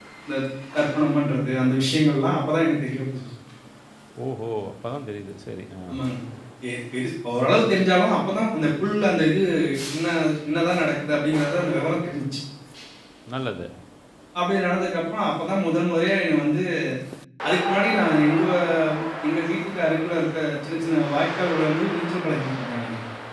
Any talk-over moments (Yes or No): No